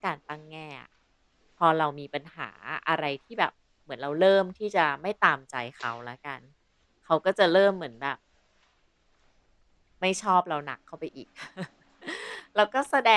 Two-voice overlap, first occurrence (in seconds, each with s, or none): none